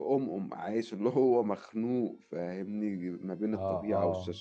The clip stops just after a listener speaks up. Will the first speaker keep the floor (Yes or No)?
Yes